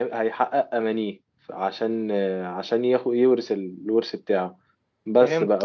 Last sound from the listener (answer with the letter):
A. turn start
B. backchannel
B